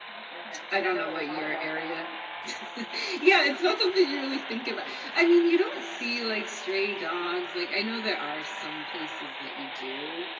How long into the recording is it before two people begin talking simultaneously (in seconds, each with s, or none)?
0.7 s